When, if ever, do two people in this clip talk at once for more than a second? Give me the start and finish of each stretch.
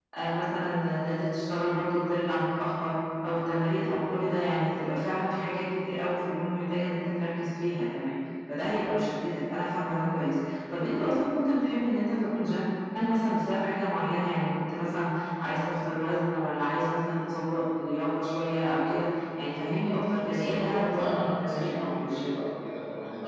20.3-22.3

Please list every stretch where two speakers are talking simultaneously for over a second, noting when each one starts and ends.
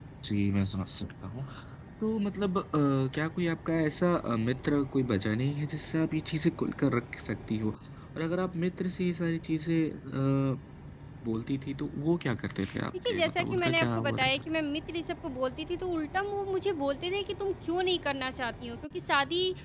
13.1-14.4

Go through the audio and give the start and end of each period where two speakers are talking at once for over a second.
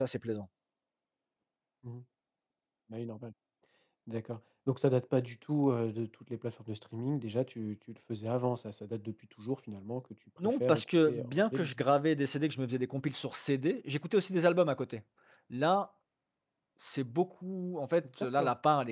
10.4-11.8

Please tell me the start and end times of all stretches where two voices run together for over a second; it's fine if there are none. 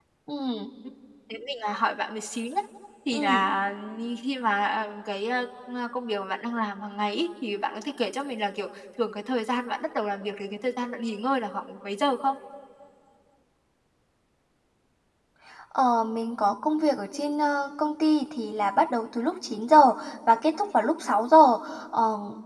none

